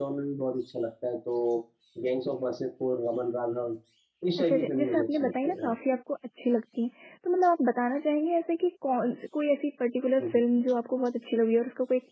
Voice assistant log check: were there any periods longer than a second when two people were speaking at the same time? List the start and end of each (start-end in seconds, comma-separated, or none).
4.4-5.7